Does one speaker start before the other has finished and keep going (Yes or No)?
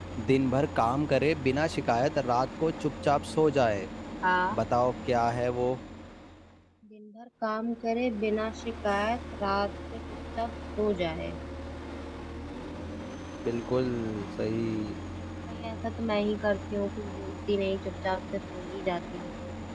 No